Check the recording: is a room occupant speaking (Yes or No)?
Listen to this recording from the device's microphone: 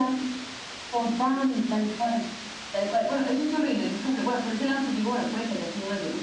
No